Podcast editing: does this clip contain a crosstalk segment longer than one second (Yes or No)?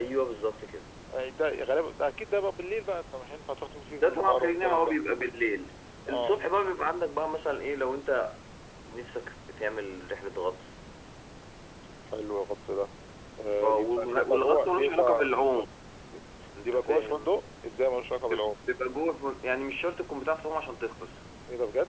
Yes